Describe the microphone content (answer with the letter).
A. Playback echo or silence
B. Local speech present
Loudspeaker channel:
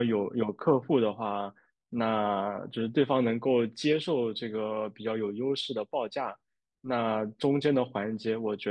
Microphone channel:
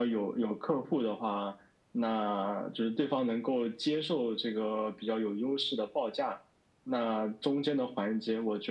A